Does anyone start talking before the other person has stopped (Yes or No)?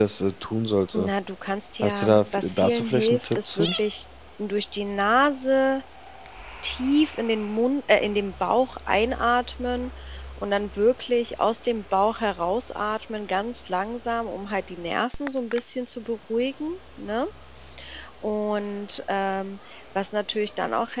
Yes